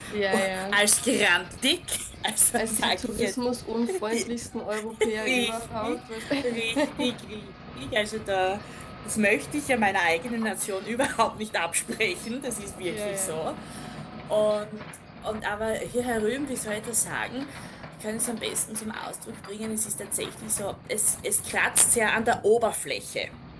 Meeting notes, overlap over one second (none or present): present